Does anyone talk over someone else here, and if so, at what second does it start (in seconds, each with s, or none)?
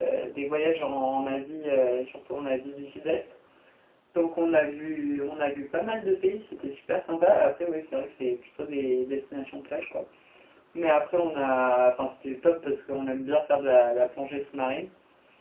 none